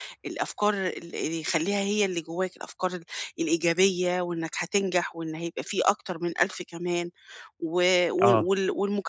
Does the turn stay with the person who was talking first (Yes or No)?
Yes